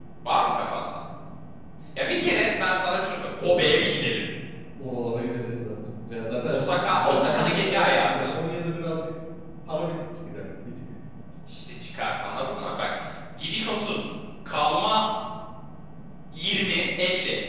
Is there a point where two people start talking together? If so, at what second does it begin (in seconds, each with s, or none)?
6.9 s